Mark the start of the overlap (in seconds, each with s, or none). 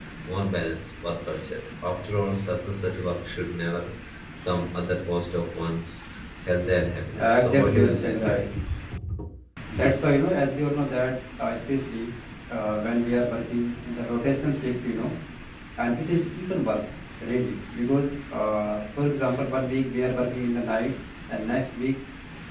7.2 s